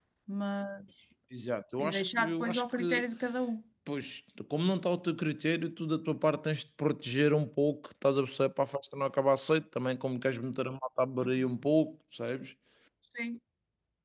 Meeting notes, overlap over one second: present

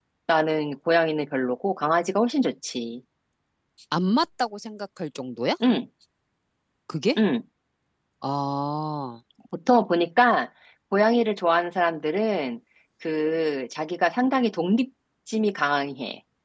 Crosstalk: none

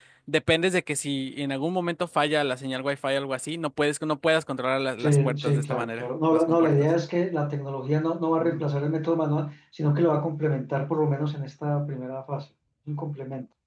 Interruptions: present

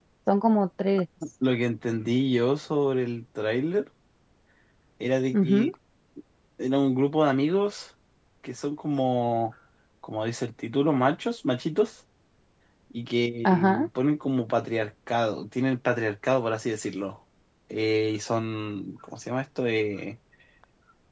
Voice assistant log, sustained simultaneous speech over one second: none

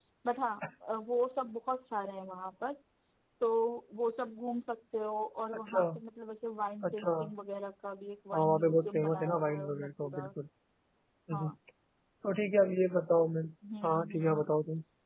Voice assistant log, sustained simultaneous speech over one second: present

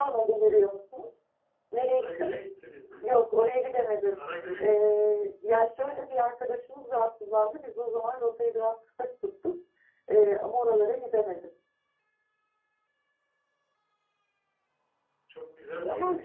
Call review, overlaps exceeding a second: none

